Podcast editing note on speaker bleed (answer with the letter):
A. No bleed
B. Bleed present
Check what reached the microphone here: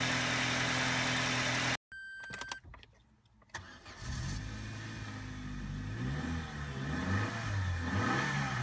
A